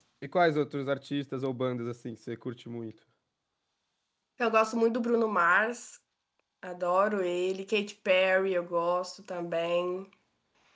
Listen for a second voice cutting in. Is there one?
No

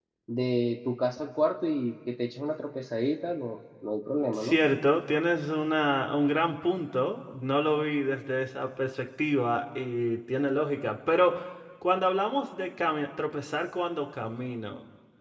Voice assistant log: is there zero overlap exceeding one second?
Yes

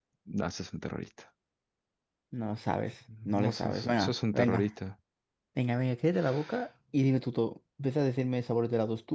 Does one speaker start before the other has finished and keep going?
Yes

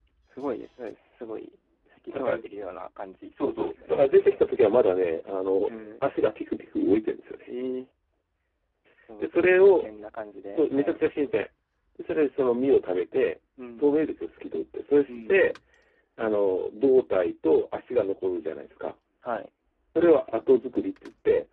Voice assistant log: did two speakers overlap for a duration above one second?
Yes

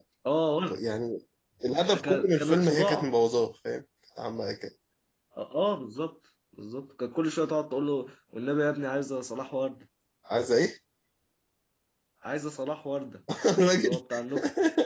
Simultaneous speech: Yes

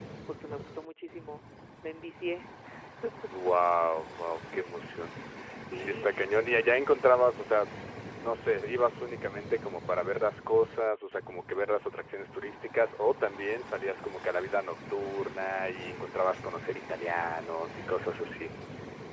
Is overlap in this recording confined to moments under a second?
Yes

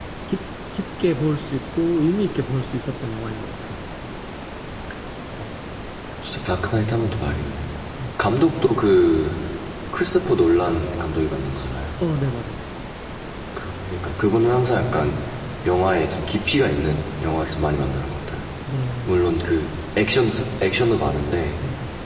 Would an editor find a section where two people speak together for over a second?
No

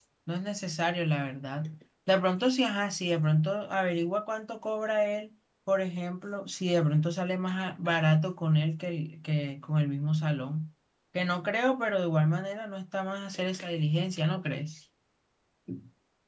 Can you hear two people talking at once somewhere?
No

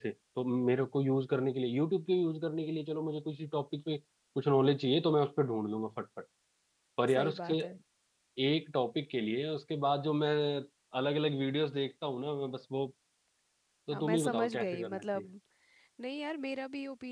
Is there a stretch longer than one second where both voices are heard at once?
Yes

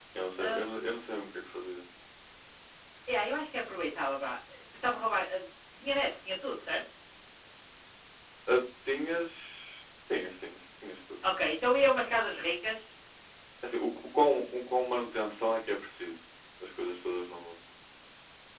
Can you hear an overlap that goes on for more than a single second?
No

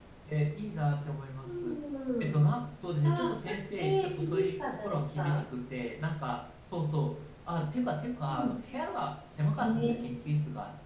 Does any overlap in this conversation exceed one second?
Yes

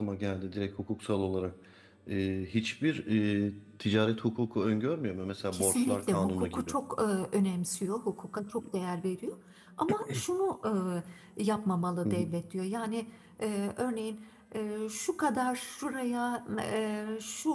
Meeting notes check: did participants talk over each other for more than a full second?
Yes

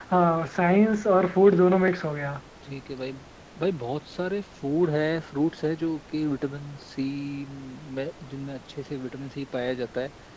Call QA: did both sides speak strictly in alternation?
Yes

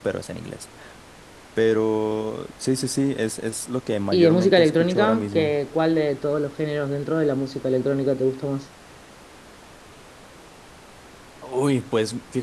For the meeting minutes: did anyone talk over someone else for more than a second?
Yes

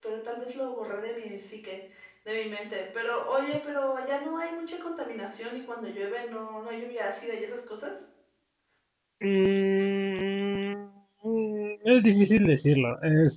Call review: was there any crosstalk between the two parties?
No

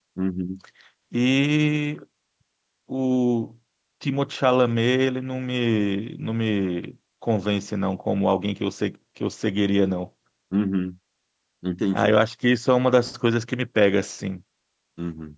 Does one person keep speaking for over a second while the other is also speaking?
No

